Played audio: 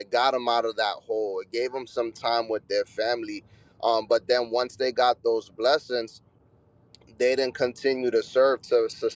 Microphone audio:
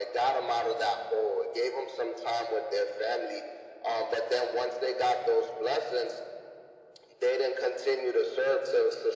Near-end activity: none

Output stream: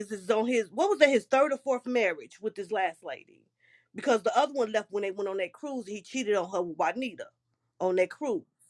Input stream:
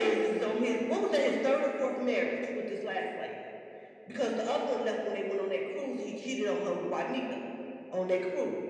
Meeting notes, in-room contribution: none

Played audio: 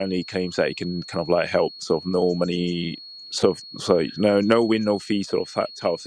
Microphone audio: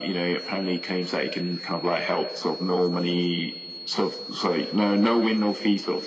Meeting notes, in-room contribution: none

